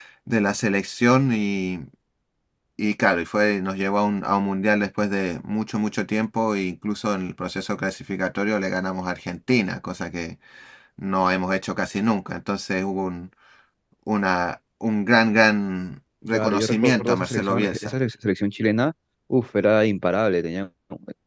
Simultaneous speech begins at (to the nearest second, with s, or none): 16 s